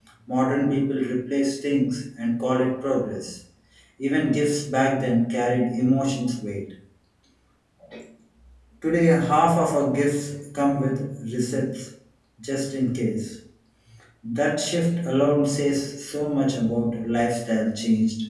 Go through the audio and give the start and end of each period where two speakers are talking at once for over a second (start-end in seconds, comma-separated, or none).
none